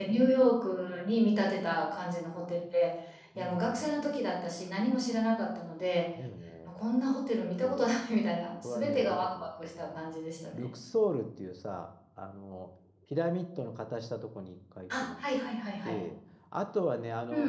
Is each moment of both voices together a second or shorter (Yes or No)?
No